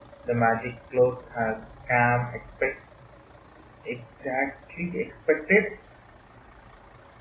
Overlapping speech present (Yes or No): No